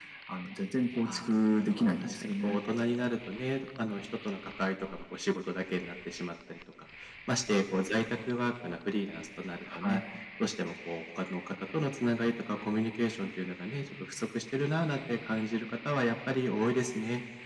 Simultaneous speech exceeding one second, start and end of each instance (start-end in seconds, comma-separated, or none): 1.1-2.6